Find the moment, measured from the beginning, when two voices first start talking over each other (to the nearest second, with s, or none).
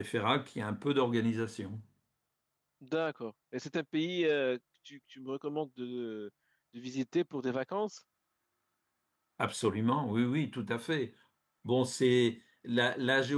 none